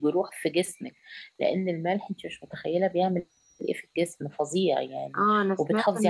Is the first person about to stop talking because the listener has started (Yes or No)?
Yes